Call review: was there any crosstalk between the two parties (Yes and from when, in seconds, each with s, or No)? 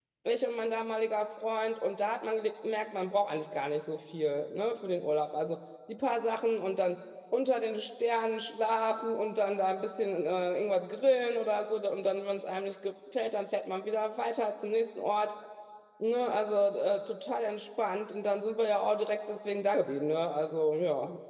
No